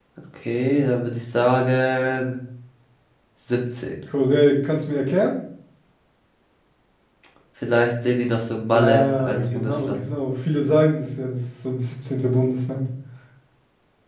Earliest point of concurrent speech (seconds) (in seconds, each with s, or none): 8.7 s